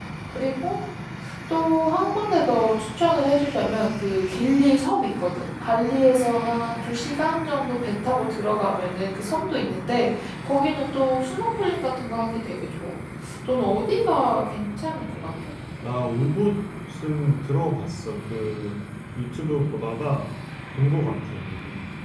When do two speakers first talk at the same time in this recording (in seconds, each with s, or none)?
none